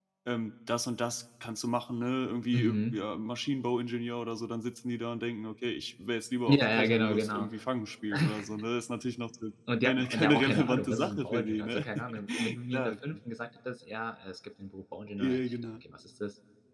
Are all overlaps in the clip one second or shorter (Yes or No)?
No